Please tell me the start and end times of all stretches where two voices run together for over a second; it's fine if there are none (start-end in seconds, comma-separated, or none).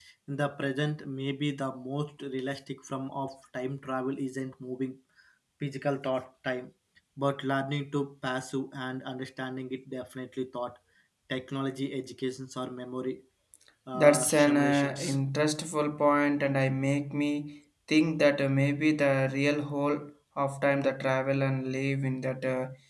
13.9-15.2